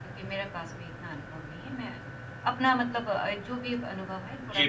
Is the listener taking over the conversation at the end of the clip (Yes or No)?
Yes